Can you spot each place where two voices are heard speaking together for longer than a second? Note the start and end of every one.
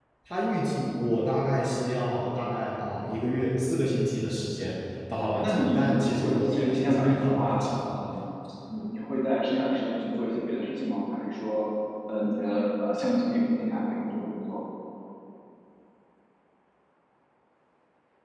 5.2-7.8

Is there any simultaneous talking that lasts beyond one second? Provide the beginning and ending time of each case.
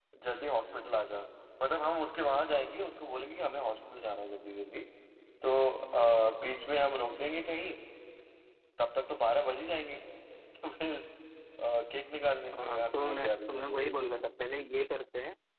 12.5-14.2

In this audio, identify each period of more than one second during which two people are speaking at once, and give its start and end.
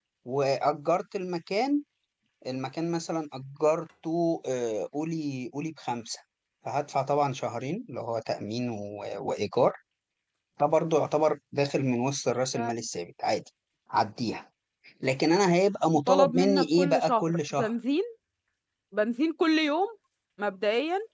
16.1-17.7

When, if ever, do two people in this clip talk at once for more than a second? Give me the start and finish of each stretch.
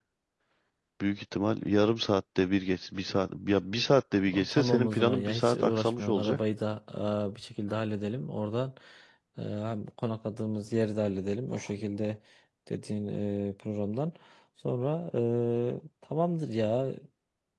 4.3-6.4

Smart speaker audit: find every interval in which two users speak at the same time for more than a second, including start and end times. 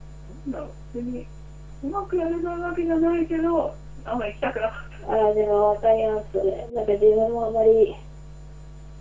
none

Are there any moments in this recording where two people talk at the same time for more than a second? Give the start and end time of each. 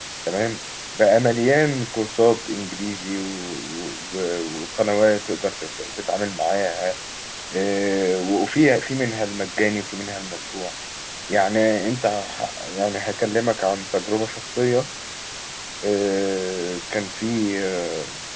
none

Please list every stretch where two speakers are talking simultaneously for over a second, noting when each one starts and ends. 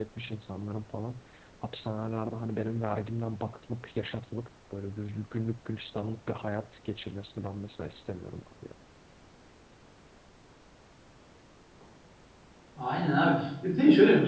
none

